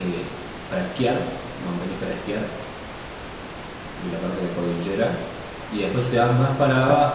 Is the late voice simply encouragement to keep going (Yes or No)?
Yes